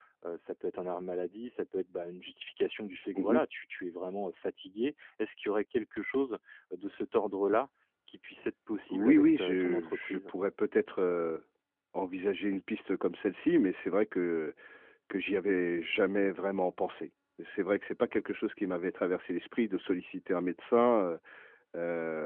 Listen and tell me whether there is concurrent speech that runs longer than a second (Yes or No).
Yes